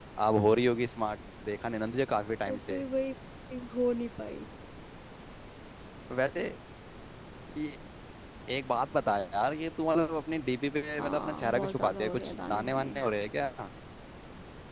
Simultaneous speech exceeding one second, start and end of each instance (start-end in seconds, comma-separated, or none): 11.0-12.9